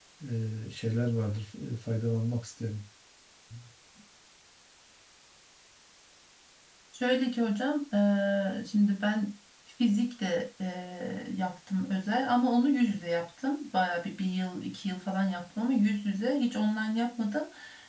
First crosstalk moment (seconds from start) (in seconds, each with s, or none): none